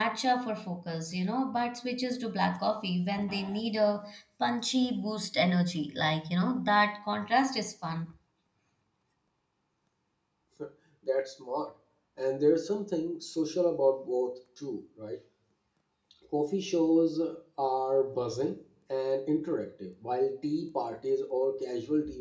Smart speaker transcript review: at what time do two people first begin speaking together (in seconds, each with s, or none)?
none